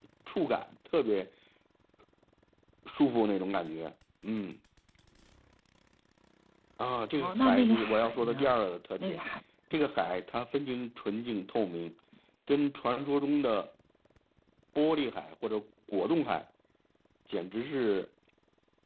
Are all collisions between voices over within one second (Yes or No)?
No